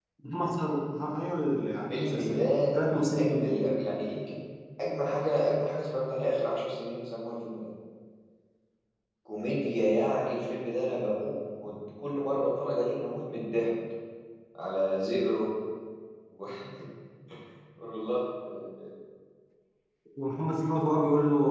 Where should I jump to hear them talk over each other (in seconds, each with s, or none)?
1.9 s